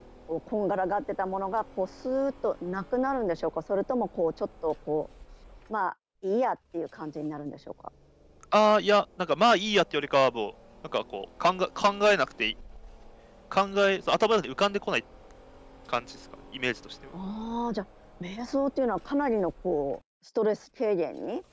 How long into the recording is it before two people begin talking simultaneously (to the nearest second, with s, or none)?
none